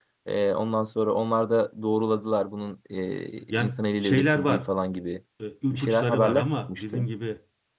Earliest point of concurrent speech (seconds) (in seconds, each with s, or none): 3.5 s